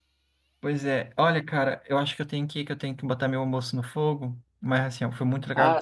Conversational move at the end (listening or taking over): listening